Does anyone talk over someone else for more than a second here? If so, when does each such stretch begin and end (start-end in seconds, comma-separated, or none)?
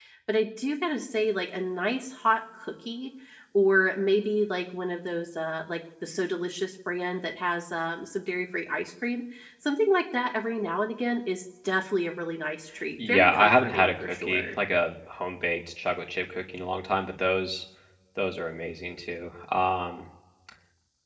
13.0-14.5